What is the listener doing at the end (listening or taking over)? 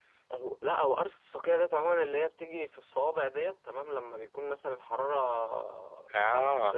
listening